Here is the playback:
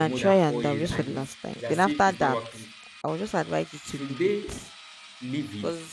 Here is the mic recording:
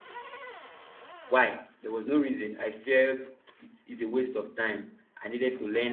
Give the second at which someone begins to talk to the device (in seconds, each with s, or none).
1.3 s